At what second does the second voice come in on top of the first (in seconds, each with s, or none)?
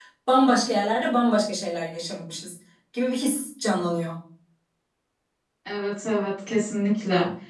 none